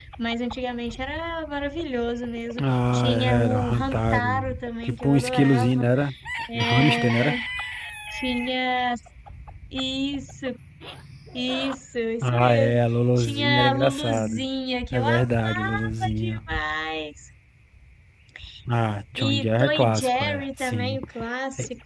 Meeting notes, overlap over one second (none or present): present